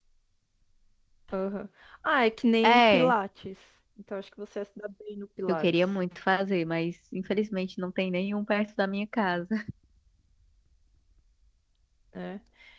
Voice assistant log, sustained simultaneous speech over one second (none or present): none